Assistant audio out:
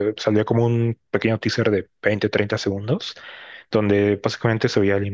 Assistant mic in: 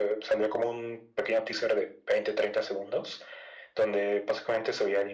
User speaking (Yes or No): No